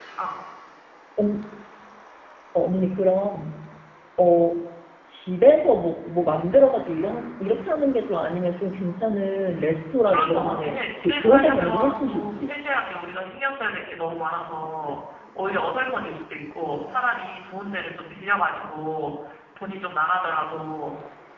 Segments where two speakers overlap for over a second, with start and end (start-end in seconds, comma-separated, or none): 10.0-12.5